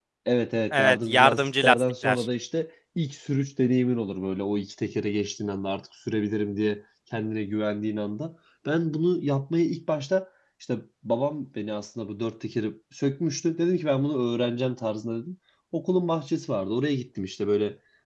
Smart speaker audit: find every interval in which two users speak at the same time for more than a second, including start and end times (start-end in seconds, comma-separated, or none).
0.7-2.3